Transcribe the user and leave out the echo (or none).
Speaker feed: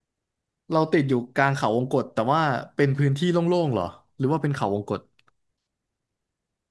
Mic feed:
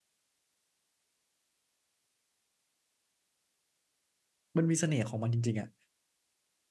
มันมีเสน่ห์ของมันจริงๆอ่ะ